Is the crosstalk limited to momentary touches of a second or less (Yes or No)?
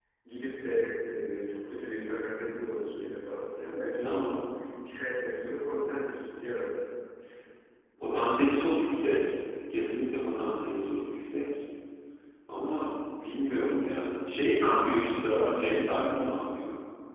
Yes